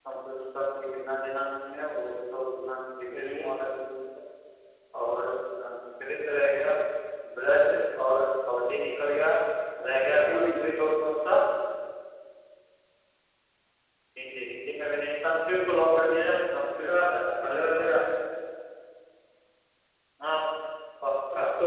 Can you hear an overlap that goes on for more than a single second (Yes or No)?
No